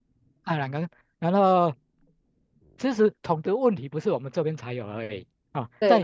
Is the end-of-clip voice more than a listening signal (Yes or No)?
No